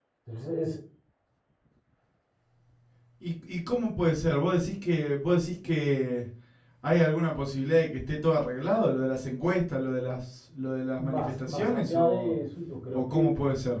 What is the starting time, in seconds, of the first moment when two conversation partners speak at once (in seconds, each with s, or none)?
11.0 s